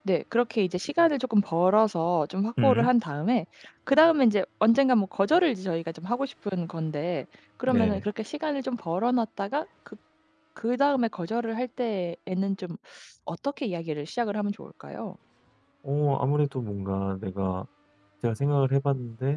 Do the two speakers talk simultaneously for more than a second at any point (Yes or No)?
No